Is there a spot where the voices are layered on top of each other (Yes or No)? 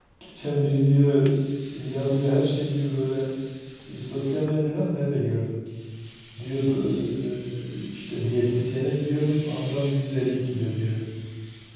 No